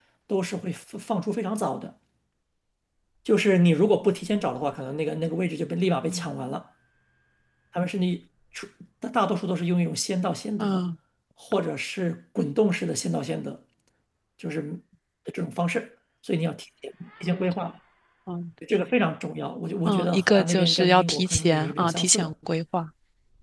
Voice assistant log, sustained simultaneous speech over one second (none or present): present